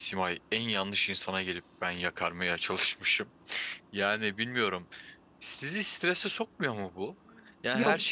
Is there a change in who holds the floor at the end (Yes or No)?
No